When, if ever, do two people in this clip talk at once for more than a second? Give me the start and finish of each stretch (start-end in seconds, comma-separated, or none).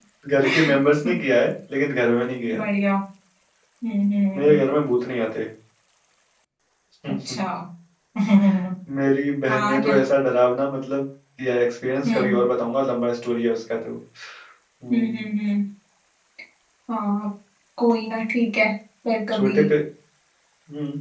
none